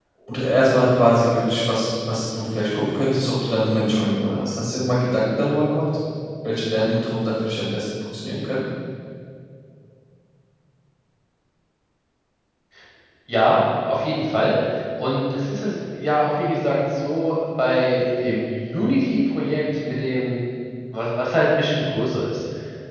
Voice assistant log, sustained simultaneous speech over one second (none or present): none